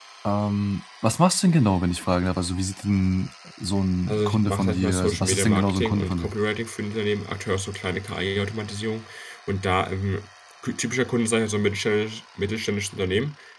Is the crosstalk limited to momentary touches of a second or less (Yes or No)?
No